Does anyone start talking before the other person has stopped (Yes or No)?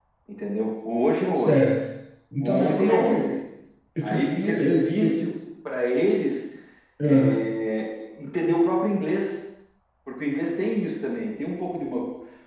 Yes